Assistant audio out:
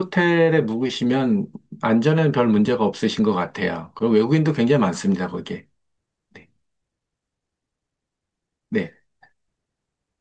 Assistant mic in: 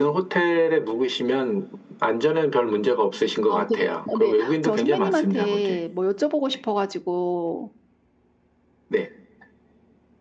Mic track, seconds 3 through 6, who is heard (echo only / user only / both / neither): both